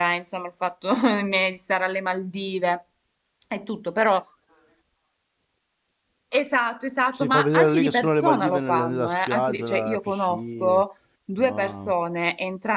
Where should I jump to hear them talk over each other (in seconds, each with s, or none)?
7.1 s